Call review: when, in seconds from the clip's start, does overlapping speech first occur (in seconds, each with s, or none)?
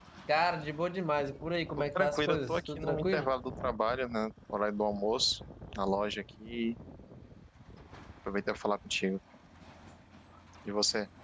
2.0 s